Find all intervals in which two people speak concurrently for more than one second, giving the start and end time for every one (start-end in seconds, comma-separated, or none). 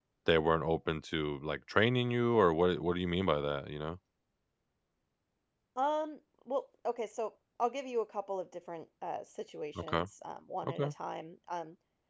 none